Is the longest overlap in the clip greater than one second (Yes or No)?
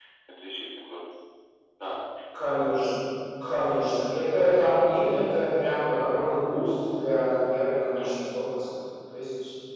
No